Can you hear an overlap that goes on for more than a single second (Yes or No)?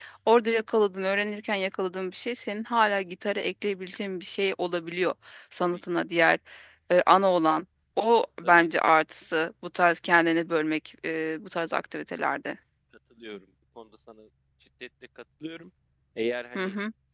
No